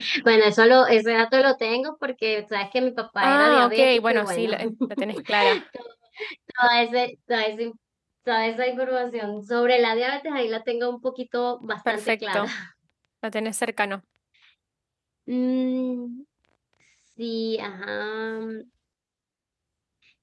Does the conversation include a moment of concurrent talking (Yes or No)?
Yes